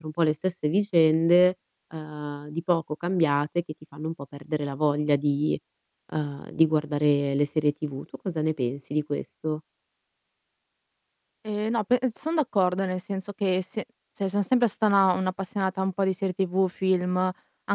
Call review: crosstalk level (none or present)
none